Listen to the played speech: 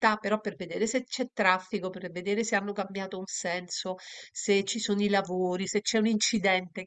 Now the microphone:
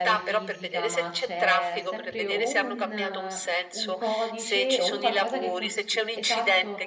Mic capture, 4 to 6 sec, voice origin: both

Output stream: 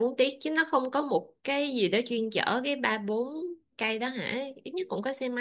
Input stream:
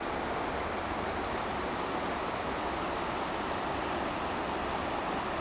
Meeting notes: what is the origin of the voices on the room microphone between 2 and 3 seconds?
neither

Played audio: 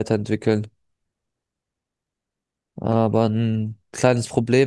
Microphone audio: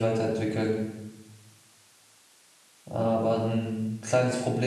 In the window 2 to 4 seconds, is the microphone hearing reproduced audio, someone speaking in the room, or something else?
echo only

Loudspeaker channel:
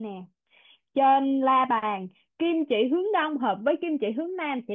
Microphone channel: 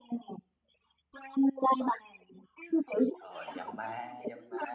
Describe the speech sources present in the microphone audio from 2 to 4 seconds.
both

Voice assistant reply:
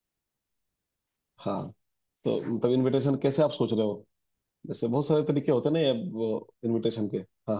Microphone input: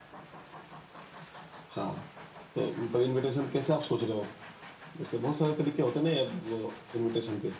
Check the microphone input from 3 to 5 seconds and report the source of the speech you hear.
echo only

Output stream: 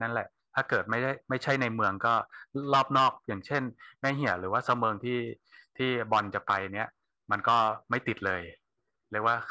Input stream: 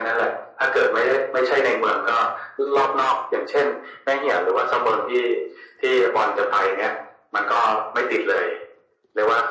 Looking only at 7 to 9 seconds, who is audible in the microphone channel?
echo only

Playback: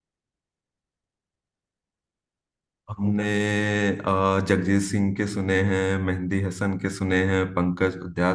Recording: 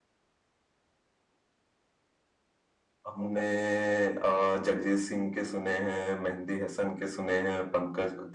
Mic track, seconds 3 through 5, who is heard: echo only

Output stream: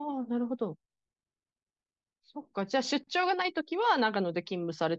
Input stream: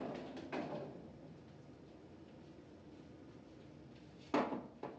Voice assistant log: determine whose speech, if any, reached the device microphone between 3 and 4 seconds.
neither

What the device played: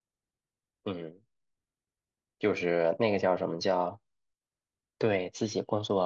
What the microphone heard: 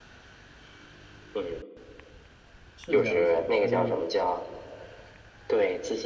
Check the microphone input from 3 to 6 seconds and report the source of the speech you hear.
both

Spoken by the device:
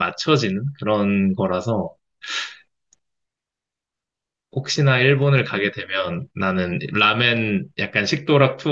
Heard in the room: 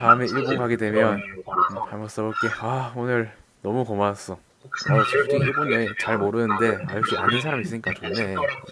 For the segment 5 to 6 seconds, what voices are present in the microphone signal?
both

